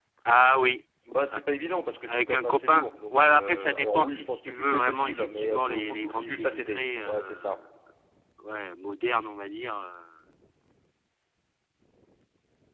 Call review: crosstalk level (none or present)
present